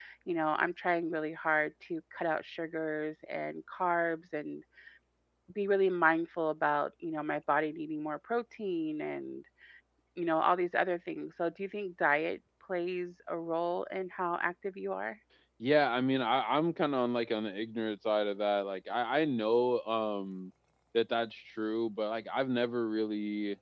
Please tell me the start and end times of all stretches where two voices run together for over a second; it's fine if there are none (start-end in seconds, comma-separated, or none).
none